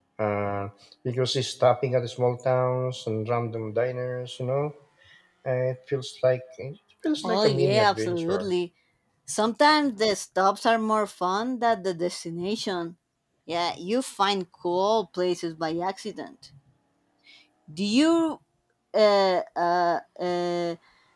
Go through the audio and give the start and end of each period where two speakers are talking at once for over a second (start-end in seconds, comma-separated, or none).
7.2-8.5